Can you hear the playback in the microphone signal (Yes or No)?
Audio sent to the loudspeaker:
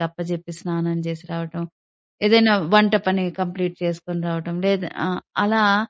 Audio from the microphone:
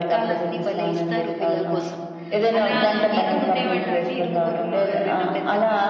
Yes